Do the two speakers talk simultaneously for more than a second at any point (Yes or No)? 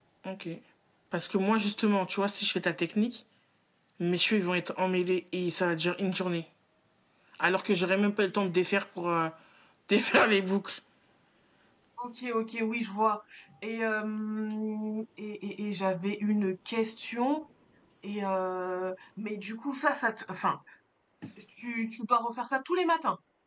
No